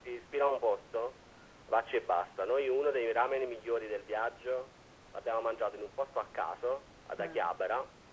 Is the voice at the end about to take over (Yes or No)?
No